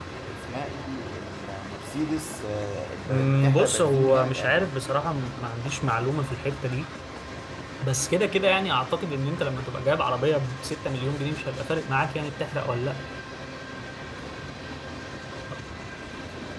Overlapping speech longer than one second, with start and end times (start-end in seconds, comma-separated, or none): 3.0-4.7